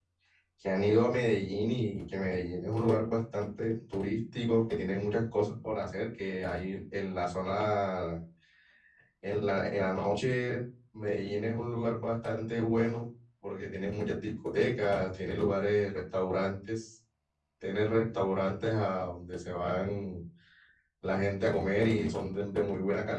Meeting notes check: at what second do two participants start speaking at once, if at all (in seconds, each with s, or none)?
none